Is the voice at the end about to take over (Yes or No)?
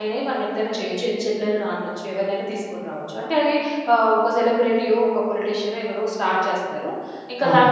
No